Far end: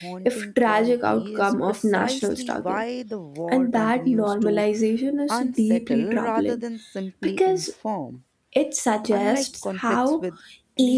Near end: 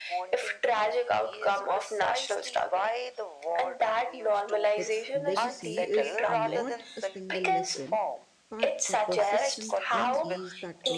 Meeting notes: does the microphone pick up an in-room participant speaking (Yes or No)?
Yes